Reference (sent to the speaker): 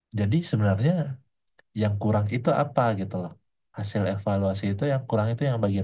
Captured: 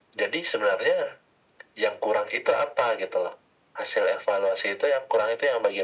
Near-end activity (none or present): none